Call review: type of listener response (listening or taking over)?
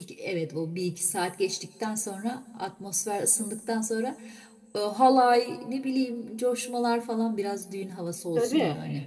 taking over